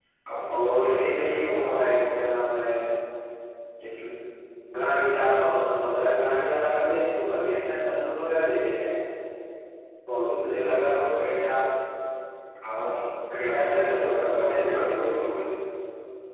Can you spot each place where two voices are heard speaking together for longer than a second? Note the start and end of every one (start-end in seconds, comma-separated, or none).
0.5-1.9, 13.5-15.2